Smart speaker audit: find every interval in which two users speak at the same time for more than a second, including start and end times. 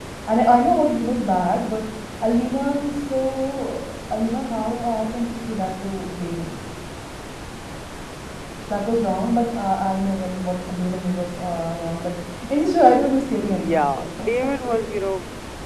13.4-14.8

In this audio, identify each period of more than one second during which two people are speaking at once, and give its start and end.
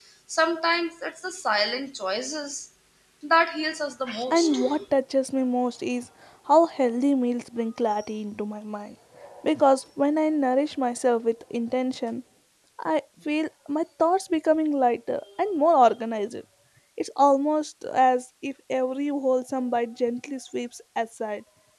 none

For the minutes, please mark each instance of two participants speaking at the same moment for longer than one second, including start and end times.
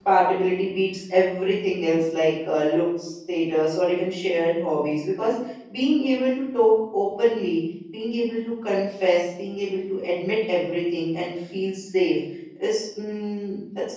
none

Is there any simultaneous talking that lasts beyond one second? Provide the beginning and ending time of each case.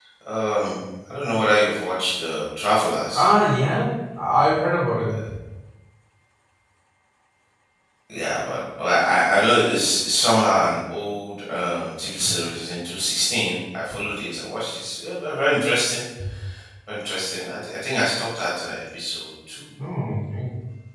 none

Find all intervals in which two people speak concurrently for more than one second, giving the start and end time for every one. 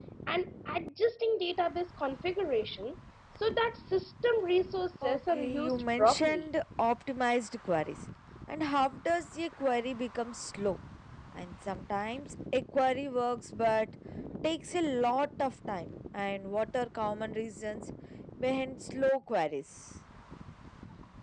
5.0-6.5

